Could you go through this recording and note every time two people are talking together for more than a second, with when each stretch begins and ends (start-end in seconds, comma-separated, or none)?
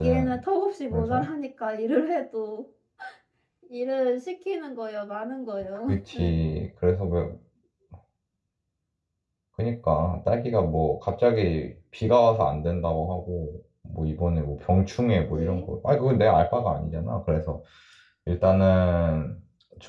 none